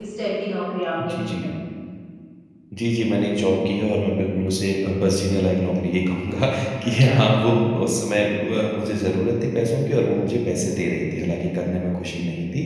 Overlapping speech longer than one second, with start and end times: none

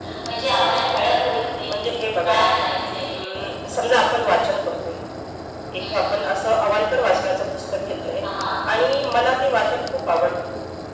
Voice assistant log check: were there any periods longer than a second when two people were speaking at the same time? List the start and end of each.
none

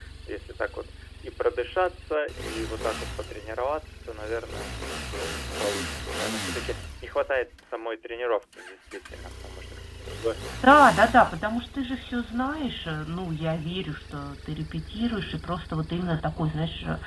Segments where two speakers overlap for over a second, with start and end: none

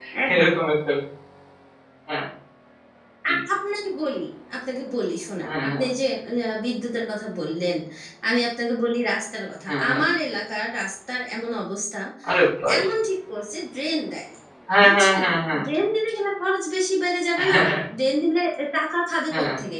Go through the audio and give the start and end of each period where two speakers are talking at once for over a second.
none

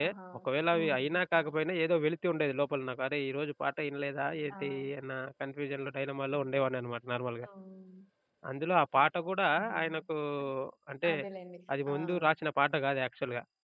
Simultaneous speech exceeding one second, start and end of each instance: none

